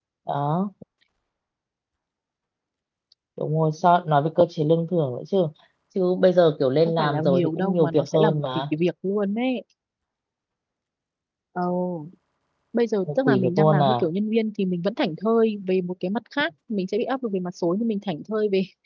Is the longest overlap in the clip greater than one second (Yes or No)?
Yes